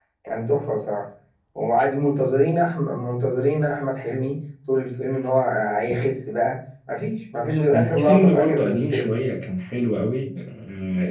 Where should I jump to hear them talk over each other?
7.7 s

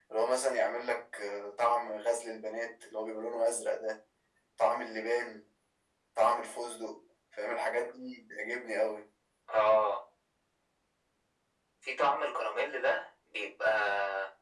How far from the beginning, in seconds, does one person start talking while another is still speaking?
none

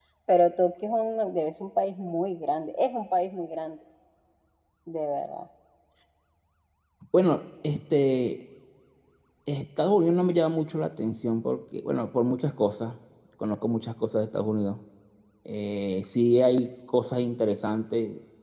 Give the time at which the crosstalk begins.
none

